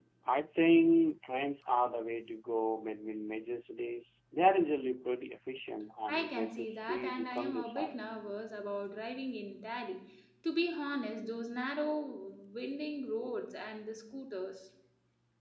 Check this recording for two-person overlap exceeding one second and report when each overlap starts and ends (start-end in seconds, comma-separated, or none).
6.1-8.0